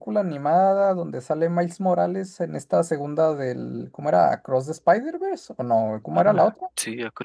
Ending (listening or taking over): taking over